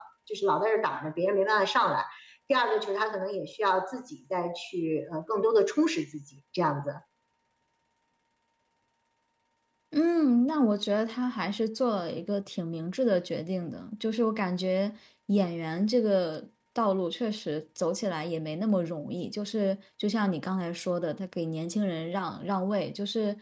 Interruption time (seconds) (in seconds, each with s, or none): none